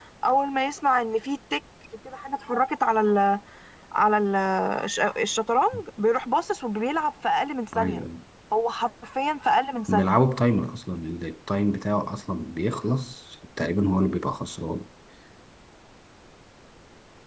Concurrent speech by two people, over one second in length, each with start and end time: none

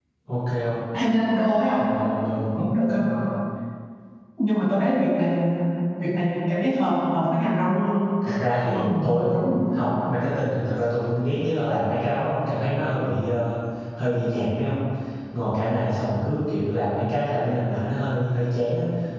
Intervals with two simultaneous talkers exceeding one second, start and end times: 8.5-9.8

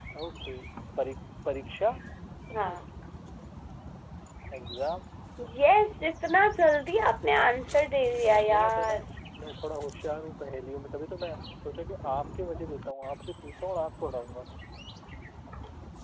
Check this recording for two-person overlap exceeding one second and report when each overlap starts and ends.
7.5-8.9

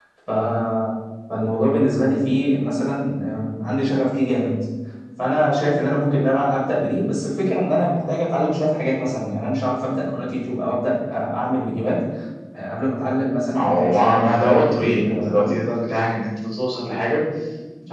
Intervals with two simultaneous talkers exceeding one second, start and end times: 13.5-15.5

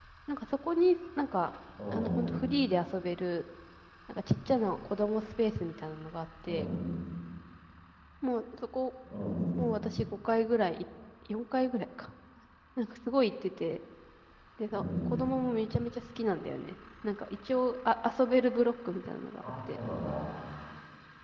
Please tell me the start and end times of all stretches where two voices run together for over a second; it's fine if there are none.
none

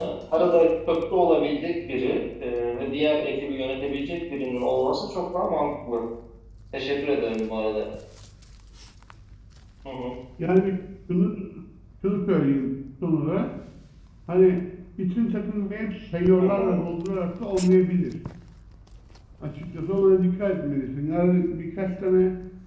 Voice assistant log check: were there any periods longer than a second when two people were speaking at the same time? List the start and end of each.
none

